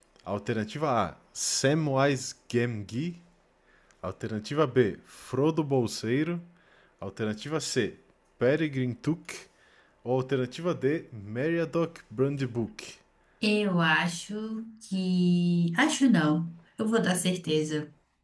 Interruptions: none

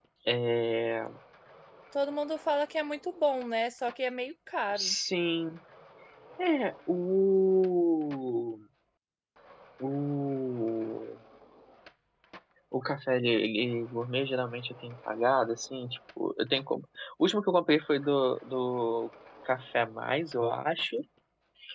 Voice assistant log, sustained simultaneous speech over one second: none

